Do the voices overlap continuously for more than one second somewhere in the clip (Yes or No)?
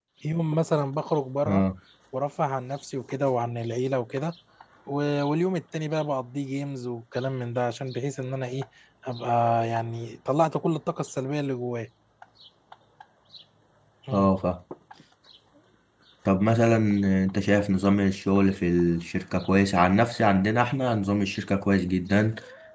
No